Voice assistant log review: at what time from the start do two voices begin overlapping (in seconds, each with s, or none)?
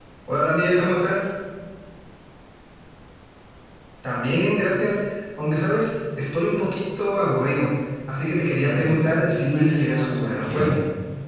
8.5 s